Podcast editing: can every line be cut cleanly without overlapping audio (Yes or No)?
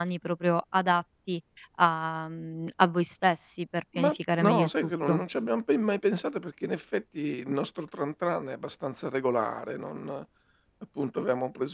No